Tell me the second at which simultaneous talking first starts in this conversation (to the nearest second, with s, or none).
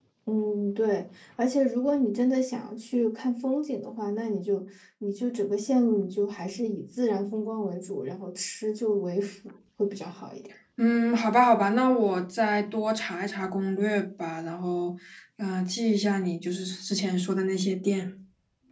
none